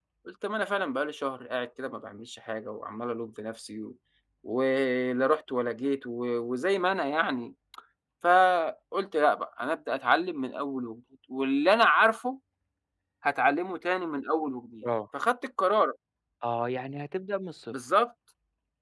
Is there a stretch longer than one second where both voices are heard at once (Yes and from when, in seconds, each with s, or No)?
No